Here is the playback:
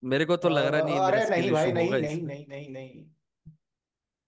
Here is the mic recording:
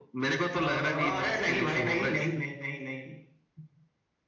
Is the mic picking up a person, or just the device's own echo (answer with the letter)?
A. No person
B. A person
A